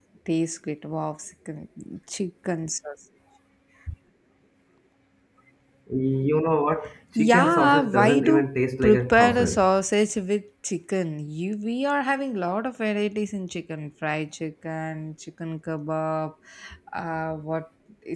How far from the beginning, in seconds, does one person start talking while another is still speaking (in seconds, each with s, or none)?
7.2 s